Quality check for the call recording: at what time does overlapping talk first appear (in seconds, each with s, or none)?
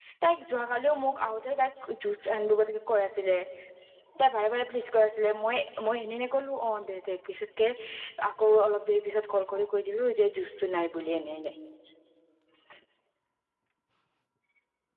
none